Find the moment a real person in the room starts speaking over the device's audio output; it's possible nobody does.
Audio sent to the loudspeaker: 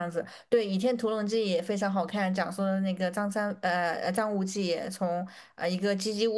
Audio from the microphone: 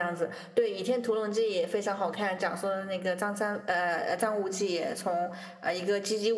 none

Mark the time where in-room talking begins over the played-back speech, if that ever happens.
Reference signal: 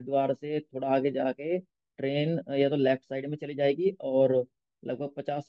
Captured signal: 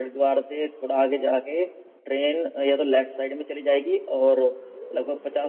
none

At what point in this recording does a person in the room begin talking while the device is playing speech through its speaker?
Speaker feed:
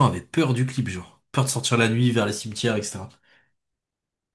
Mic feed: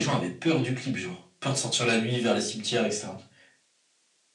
none

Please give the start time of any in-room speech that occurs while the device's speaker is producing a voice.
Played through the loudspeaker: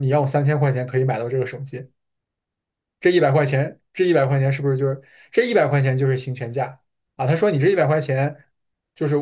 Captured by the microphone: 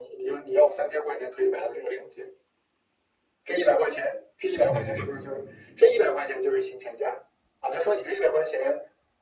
4.6 s

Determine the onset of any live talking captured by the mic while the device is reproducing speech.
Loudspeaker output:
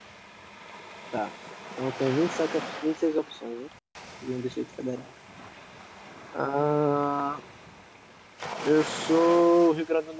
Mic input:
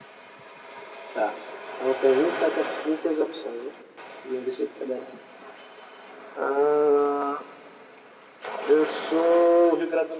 none

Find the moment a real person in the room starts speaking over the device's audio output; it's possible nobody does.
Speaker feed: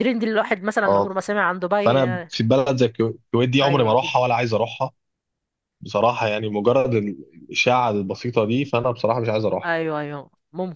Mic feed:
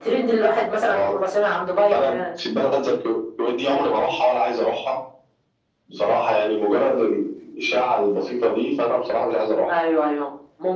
none

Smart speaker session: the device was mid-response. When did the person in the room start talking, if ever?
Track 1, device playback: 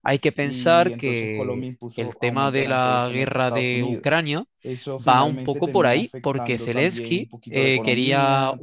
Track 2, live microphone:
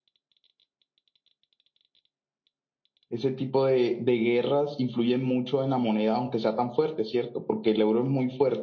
3.1 s

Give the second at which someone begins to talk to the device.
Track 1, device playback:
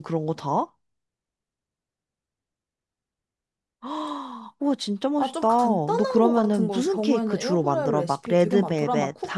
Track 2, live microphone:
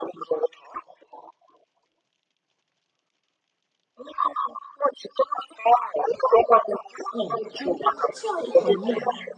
7.1 s

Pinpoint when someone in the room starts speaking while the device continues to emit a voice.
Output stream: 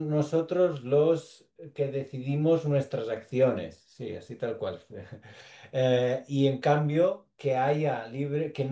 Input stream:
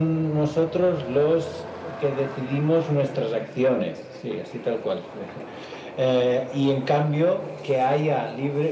none

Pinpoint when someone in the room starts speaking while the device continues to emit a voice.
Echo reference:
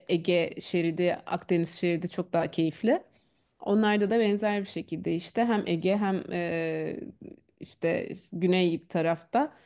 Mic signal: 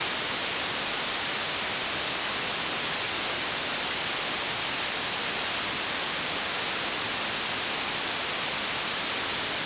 none

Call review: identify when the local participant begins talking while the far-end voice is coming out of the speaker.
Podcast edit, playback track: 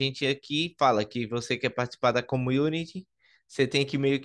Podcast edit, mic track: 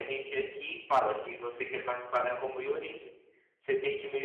none

